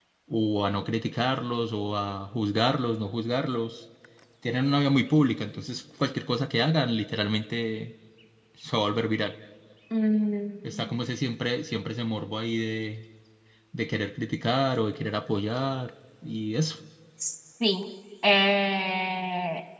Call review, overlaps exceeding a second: none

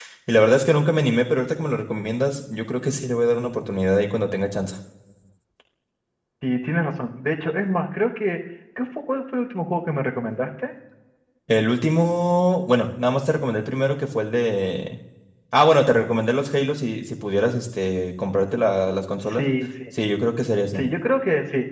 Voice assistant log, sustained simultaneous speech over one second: none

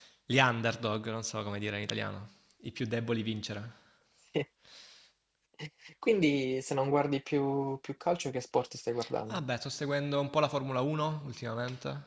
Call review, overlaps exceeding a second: none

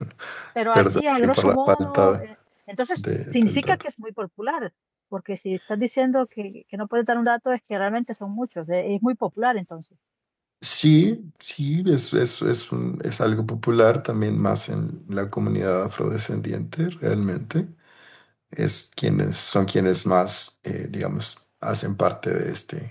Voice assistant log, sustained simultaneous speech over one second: present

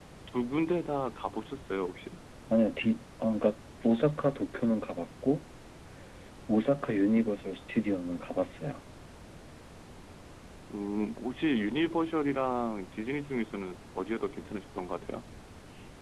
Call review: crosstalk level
none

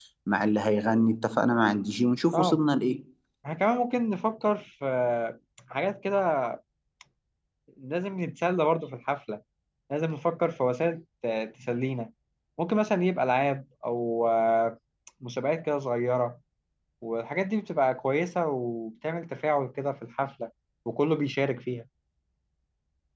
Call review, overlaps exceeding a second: none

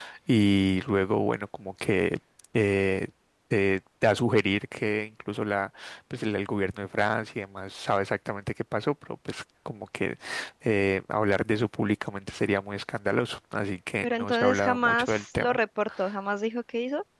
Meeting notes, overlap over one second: present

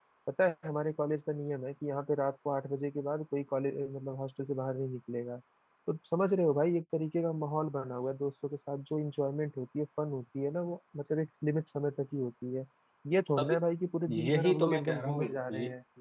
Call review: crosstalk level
present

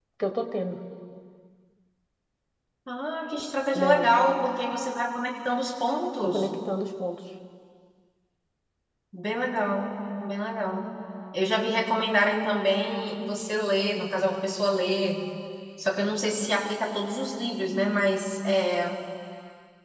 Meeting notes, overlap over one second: none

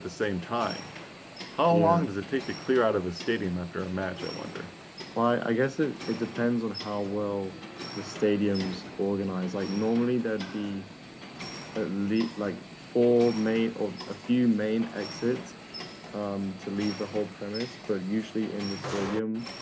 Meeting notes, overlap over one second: none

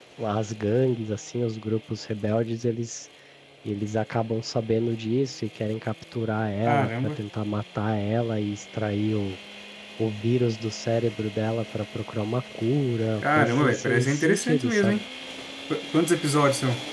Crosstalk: present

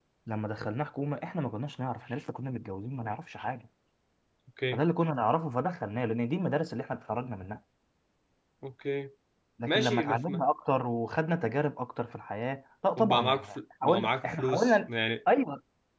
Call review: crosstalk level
present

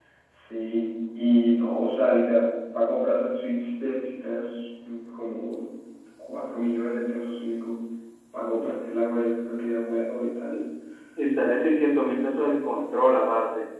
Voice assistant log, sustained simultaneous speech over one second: none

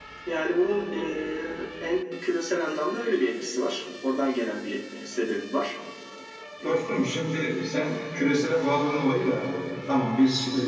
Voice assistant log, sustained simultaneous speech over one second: none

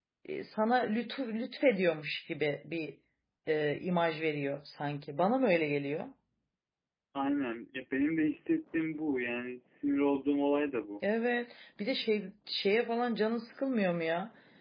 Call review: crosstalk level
none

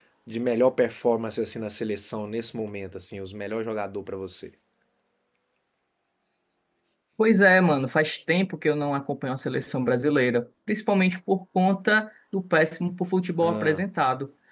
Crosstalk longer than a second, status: none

